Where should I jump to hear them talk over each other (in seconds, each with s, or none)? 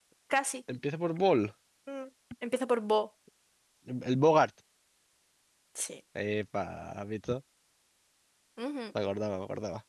none